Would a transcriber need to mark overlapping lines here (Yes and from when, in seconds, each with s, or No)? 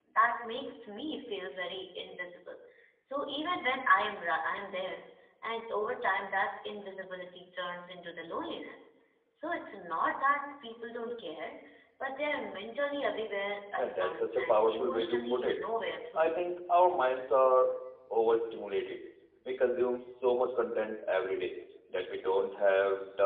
Yes, from 13.8 s